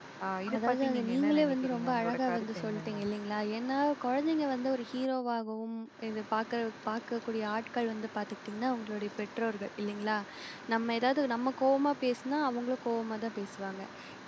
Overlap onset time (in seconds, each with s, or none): 0.6 s